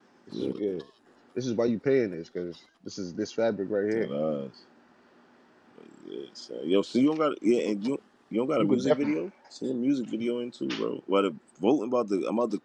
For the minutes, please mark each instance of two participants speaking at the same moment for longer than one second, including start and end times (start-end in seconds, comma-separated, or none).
none